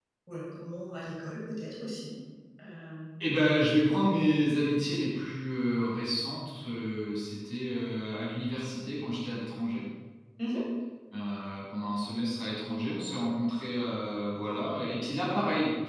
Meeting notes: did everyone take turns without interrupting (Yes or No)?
Yes